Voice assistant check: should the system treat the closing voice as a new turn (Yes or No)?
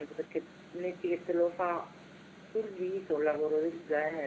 Yes